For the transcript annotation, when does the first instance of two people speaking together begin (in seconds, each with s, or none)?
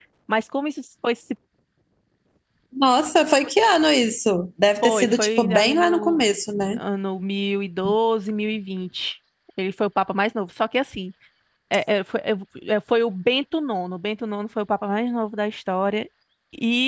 4.8 s